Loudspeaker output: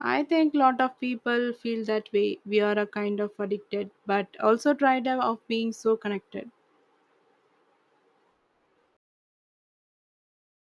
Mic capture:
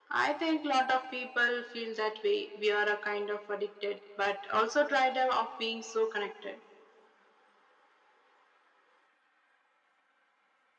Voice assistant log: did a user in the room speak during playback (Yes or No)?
No